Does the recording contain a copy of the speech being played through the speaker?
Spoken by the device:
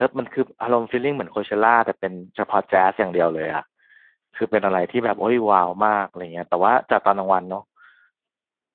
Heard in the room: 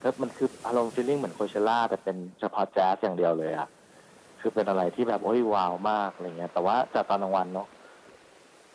Yes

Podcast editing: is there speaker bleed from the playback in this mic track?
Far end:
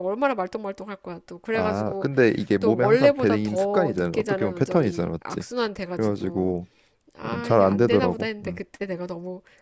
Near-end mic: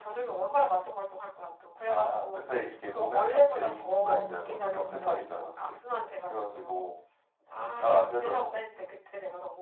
Yes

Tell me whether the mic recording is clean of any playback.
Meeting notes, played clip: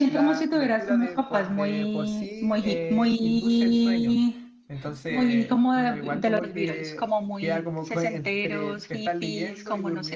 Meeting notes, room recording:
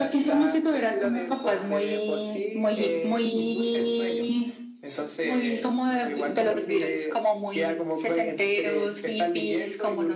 No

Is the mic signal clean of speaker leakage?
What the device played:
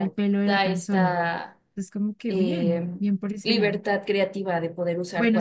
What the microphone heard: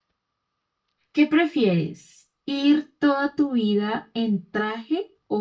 Yes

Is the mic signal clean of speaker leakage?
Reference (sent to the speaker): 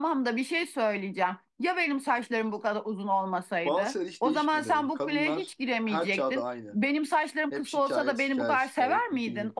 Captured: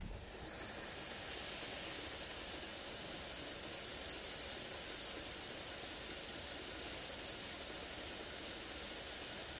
Yes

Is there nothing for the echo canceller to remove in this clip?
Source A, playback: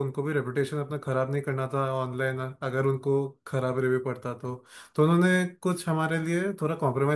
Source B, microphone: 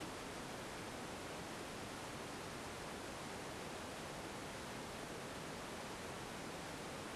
Yes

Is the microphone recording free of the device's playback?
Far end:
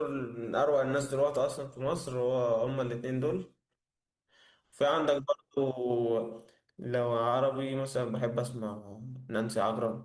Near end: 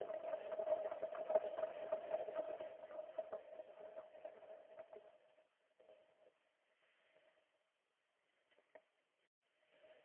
Yes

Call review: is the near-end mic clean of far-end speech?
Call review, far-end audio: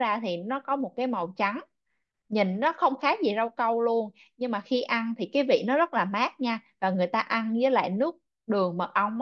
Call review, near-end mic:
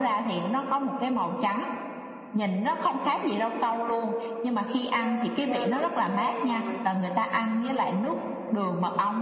No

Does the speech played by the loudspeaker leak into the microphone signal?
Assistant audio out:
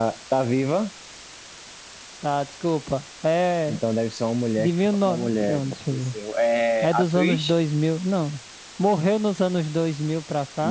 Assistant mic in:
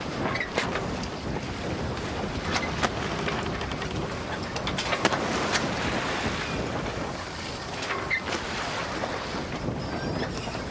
No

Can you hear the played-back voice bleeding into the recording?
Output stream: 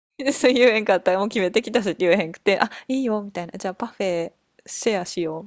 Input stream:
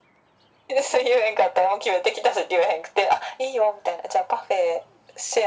Yes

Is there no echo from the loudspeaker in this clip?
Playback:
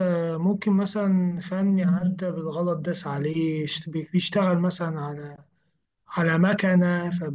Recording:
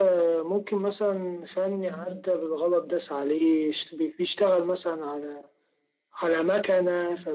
No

